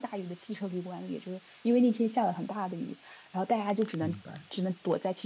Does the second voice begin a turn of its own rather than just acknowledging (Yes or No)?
No